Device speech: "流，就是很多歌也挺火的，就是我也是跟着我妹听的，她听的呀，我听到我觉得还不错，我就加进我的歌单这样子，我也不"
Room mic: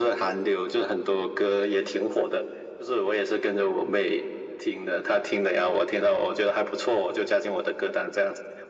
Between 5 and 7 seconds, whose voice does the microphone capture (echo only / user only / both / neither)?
echo only